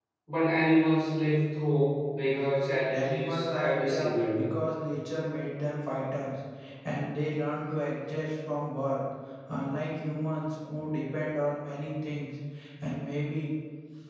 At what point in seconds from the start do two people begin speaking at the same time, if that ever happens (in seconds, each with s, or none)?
2.9 s